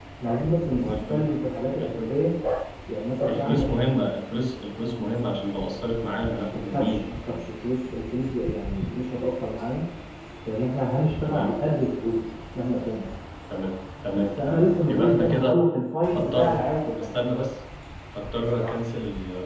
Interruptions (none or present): present